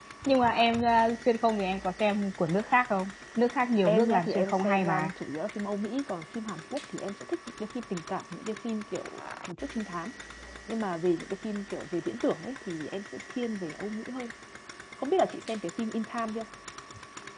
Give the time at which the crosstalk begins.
4 s

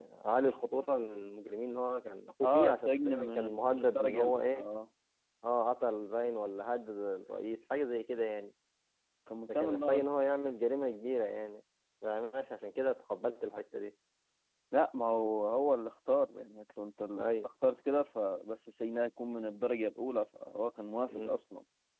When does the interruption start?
2 s

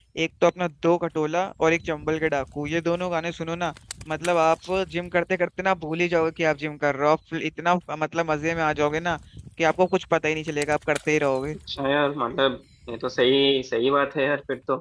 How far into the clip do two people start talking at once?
none

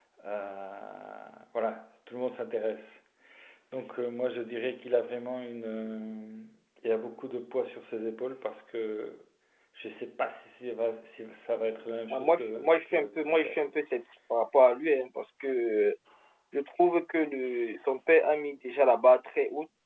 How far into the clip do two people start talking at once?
12 s

